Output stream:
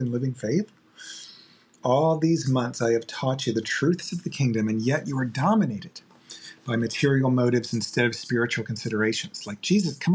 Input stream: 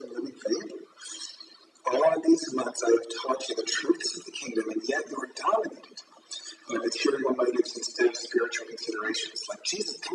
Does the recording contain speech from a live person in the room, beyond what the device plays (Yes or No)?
No